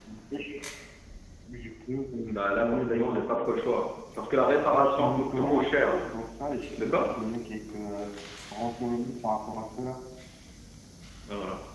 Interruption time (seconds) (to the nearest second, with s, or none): 2 s